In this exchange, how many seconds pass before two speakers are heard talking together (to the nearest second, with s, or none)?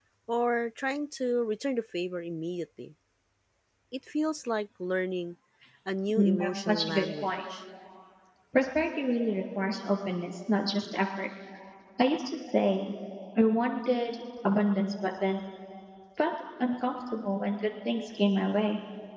6 s